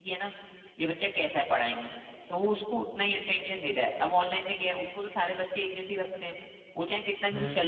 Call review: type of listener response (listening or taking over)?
listening